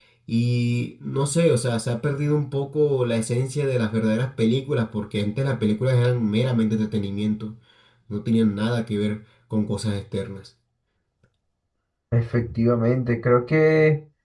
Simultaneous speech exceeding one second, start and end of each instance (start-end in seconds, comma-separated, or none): none